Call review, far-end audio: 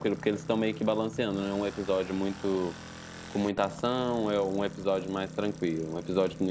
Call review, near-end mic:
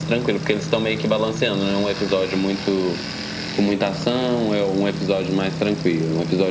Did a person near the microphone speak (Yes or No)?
No